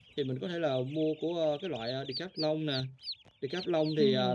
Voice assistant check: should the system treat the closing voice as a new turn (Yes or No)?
No